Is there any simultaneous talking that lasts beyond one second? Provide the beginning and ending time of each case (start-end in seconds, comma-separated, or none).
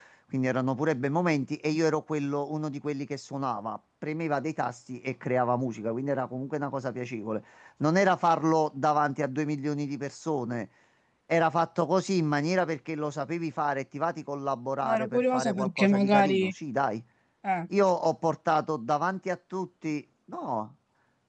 14.8-16.5